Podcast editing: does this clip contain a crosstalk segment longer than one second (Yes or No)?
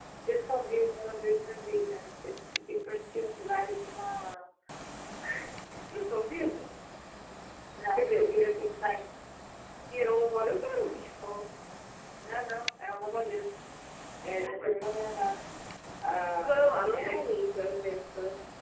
No